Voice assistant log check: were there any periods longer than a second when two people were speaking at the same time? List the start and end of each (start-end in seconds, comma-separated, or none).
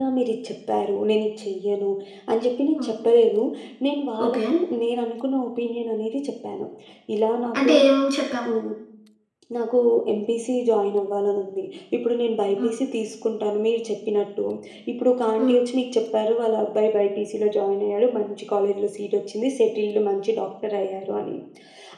none